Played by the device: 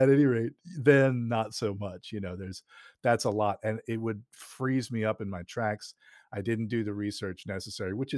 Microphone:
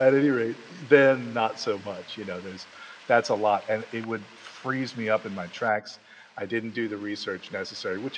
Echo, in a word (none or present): present